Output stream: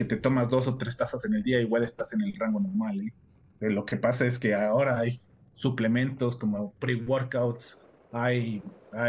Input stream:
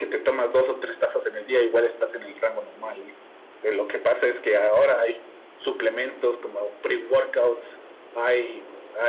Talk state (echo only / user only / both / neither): echo only